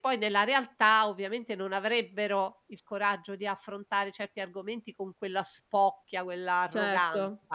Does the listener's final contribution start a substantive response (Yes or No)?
Yes